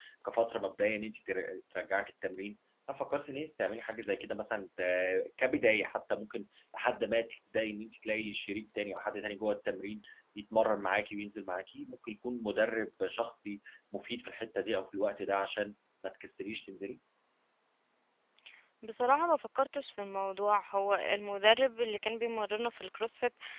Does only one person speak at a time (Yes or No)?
Yes